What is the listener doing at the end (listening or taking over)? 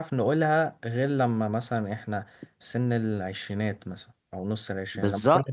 taking over